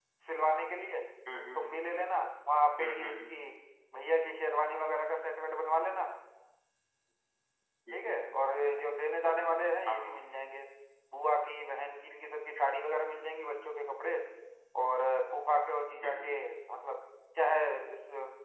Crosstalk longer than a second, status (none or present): none